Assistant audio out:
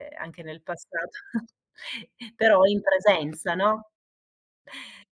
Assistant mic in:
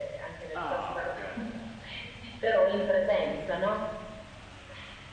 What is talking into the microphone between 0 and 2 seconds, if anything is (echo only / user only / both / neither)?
both